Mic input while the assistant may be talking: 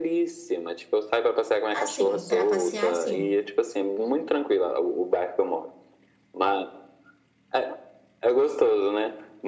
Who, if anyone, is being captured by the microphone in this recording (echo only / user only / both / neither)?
both